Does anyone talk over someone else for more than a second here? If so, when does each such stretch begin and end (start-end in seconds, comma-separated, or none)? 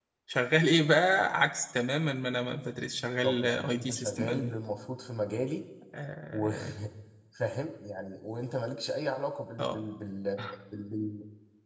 3.2-4.6